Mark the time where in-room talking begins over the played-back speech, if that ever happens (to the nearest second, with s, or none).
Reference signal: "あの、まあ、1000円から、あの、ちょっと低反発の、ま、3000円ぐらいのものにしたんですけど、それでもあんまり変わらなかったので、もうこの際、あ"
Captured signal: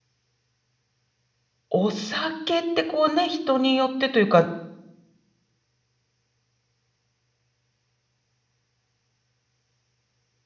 2 s